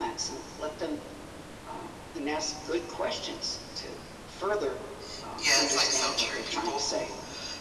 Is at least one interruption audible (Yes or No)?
Yes